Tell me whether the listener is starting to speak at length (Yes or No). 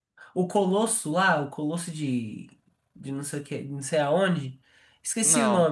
No